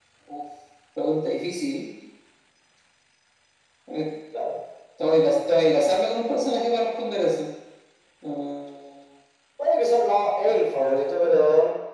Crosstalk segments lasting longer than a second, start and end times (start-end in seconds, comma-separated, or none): none